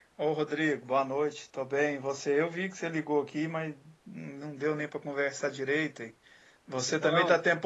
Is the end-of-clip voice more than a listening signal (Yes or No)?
No